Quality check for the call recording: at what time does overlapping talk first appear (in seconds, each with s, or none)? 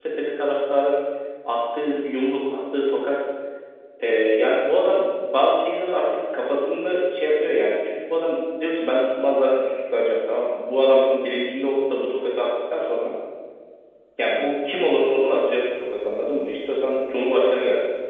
none